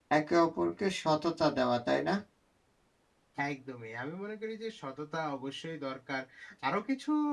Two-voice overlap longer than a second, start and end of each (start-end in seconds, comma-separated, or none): none